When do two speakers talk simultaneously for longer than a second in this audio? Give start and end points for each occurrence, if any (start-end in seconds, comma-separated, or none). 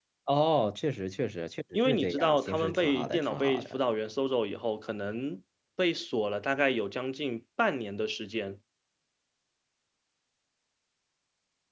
1.9-3.8